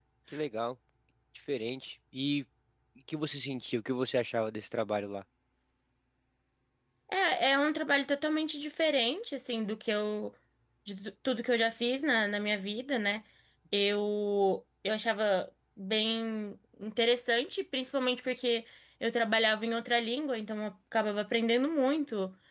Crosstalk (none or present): none